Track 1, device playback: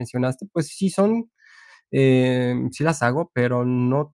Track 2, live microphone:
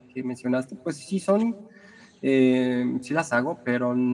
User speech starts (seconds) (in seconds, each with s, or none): none